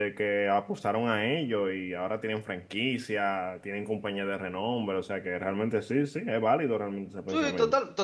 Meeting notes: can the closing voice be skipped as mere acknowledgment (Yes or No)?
No